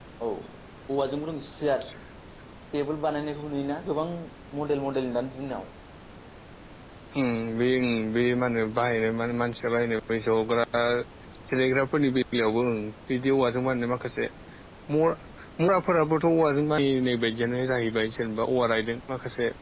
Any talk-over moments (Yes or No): No